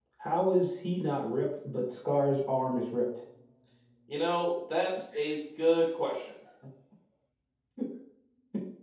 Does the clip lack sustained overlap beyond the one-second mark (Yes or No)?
Yes